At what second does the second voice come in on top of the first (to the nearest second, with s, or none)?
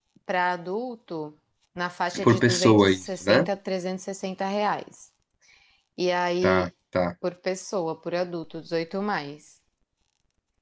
2 s